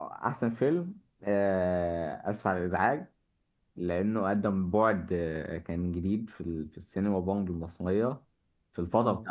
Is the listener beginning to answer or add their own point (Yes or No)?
No